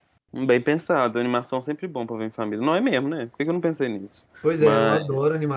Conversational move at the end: taking over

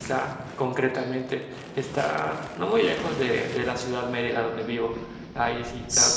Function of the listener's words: listening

